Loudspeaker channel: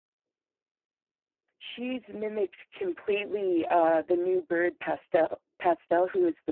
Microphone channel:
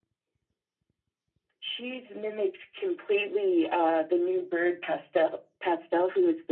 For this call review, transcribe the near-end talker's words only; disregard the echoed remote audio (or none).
none